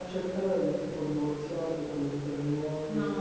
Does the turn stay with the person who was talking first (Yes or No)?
No